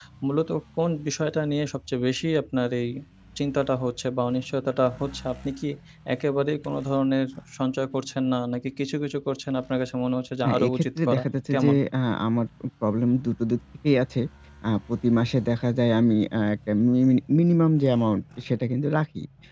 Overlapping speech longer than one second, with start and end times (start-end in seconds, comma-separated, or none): 10.4-11.8